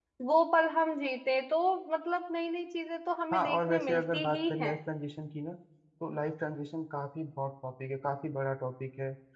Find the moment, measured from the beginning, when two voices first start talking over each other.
3.3 s

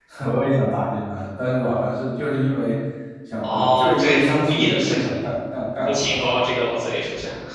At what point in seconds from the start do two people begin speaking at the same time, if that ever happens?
3.4 s

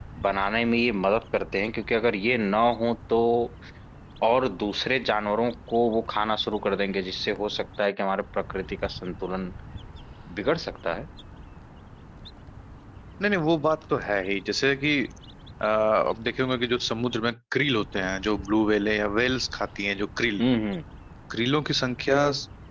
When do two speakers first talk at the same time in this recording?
none

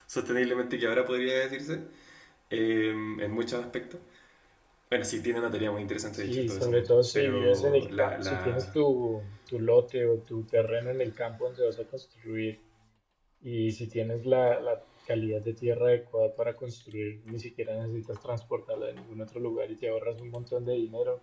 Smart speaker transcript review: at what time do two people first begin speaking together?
6.1 s

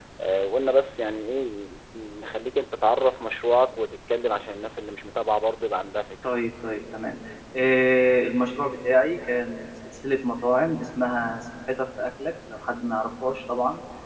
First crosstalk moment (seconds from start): none

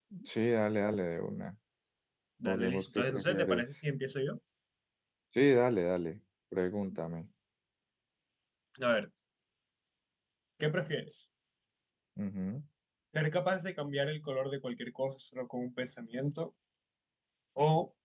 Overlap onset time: 2.5 s

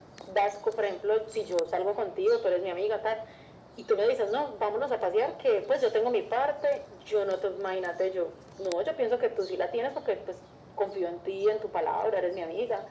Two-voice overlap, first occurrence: none

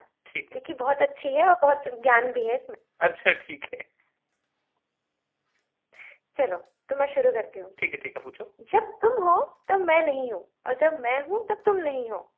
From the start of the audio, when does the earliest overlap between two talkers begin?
none

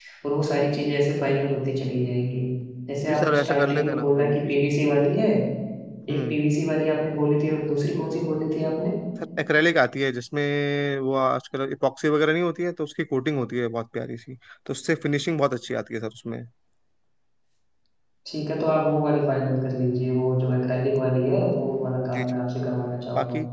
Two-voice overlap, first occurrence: 3.0 s

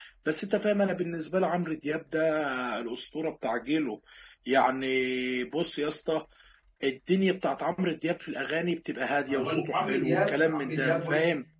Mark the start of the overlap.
9.3 s

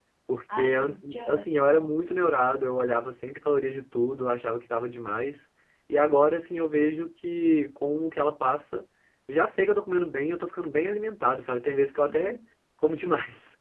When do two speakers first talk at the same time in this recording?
0.5 s

